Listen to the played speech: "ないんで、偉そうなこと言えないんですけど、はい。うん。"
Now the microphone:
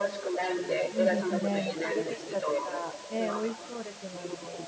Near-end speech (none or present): present